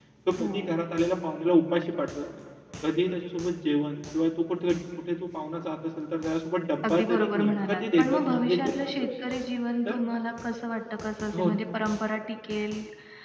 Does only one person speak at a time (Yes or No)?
No